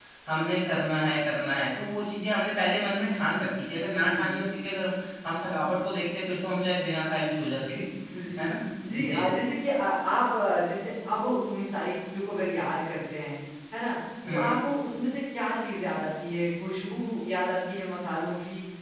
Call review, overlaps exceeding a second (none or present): none